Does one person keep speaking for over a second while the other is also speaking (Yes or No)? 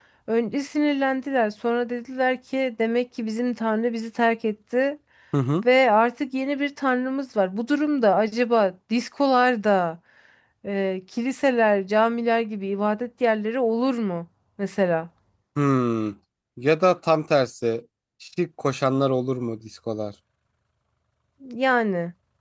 No